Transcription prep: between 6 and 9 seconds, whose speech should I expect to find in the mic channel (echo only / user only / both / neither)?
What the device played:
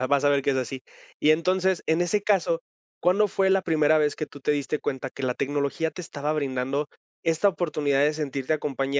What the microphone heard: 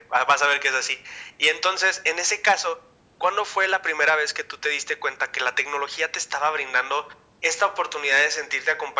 echo only